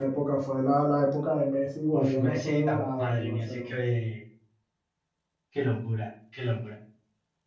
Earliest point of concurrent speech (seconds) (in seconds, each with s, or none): 1.9 s